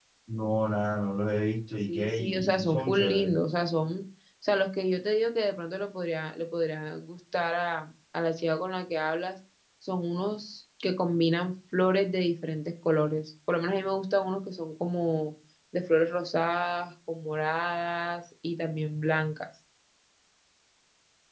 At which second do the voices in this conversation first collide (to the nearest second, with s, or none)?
2 s